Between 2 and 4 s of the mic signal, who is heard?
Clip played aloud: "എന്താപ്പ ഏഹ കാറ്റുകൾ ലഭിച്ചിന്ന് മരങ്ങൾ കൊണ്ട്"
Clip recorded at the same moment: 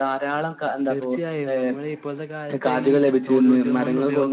both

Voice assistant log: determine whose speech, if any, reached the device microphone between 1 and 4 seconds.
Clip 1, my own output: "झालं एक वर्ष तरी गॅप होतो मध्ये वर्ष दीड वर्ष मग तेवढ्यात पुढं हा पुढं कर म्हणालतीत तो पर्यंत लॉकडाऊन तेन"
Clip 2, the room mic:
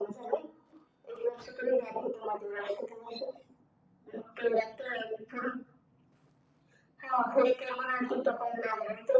echo only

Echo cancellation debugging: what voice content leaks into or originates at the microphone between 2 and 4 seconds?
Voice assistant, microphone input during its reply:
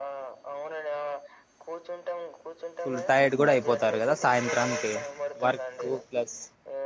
both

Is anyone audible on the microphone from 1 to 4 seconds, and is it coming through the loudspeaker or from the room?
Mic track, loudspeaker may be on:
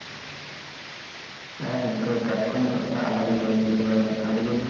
echo only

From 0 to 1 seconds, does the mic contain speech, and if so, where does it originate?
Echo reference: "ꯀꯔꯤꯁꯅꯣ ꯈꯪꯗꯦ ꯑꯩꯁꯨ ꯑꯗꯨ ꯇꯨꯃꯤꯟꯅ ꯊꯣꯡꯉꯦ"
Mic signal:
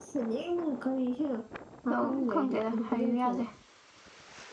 echo only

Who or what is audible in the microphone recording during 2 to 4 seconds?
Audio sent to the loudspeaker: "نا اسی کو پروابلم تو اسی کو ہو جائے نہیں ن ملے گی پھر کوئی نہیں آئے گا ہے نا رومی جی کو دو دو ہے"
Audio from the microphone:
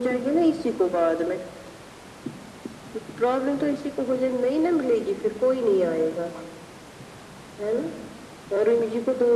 echo only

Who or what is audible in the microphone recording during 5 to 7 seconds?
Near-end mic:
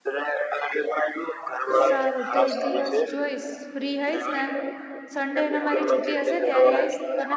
both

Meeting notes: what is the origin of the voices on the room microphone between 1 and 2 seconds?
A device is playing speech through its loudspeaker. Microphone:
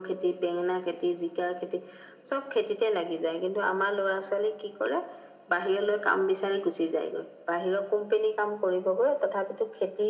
echo only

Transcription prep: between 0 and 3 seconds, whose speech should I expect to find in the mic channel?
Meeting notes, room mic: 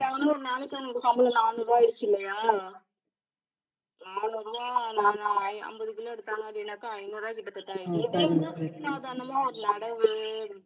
echo only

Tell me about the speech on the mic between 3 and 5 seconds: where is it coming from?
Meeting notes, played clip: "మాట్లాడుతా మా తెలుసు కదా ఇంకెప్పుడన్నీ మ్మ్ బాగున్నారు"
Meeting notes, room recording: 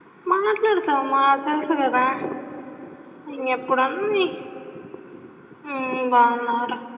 echo only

